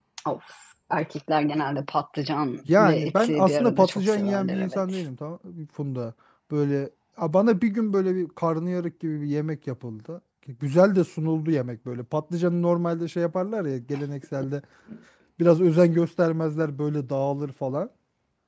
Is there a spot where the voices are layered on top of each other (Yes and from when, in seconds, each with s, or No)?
Yes, from 2.6 s